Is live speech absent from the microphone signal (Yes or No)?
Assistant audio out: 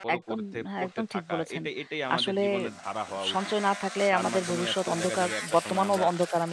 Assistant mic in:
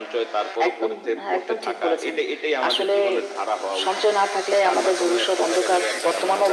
No